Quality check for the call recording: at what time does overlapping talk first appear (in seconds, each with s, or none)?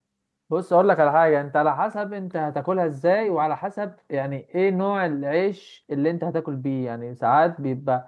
none